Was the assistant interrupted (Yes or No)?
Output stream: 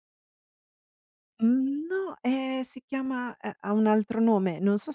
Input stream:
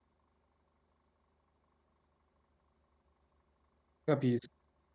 Yes